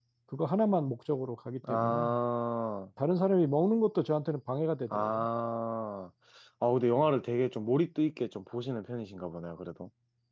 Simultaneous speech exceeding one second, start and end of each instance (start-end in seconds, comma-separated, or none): none